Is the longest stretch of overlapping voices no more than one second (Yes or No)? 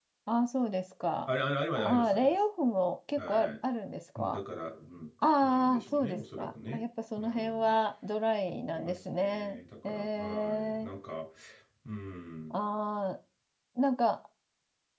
No